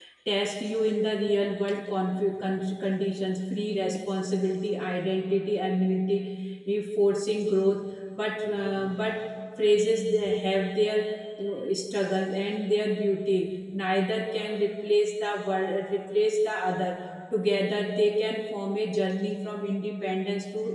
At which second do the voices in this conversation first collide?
none

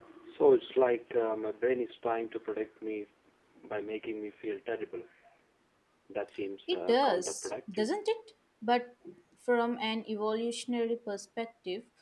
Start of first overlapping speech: 7 s

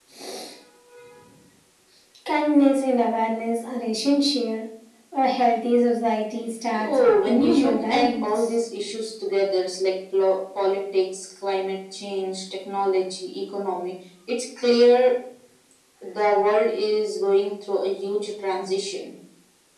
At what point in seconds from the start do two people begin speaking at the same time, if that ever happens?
7 s

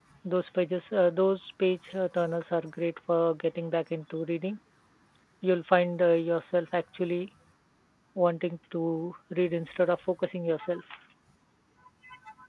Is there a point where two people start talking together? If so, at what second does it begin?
none

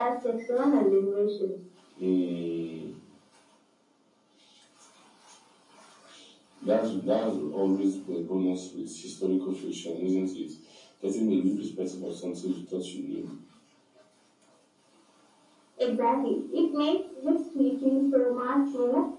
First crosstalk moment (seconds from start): none

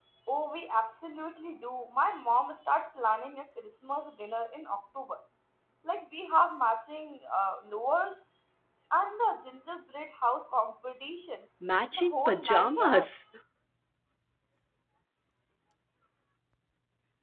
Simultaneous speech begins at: 12 s

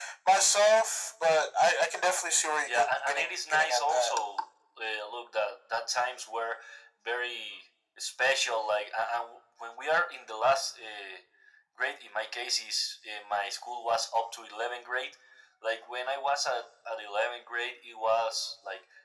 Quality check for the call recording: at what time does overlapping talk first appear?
3 s

